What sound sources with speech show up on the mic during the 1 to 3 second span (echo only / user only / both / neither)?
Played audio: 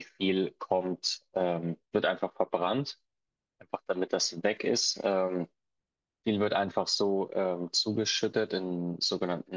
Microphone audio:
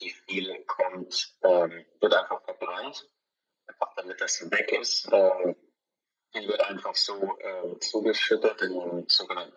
echo only